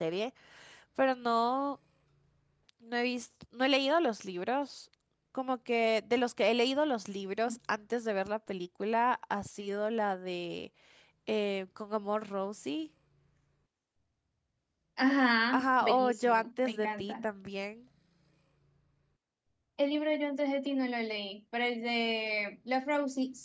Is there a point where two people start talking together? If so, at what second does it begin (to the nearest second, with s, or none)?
16 s